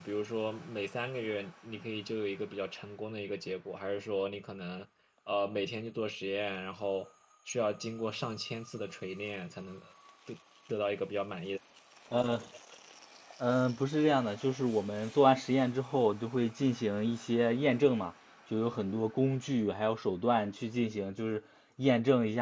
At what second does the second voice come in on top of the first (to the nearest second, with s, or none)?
none